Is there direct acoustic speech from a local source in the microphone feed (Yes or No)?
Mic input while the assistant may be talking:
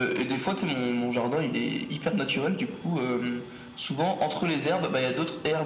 No